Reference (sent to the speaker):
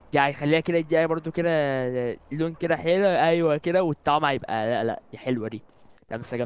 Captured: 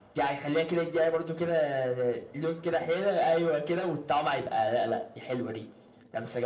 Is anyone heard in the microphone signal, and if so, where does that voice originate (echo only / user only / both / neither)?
echo only